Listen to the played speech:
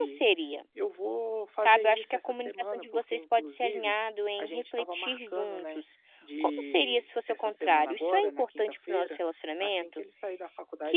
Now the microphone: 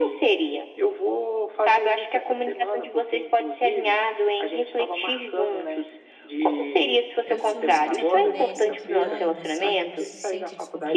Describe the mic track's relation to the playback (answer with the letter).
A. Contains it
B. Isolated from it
A